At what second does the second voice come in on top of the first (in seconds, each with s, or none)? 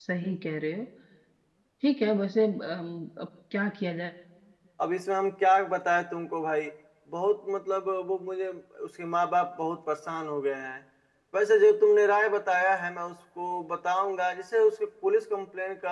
none